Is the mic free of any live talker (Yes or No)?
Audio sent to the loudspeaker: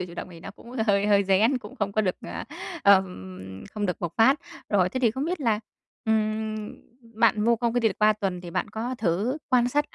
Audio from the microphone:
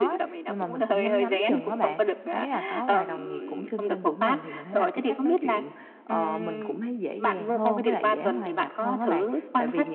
No